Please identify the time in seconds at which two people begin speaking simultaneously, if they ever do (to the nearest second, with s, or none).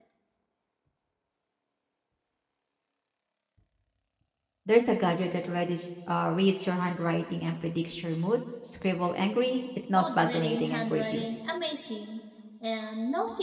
10 s